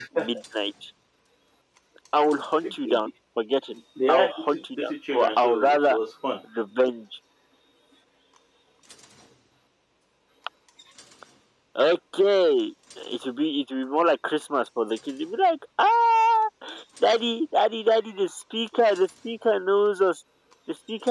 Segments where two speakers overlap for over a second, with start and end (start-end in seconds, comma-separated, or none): 4.1-6.0